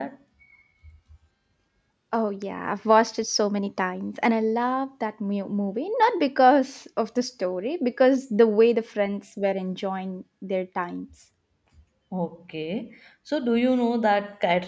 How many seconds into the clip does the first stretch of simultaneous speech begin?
none

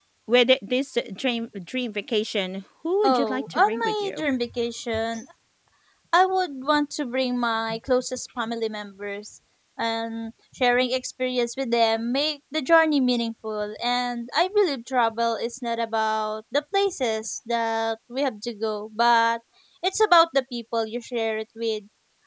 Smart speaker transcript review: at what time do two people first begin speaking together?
3.0 s

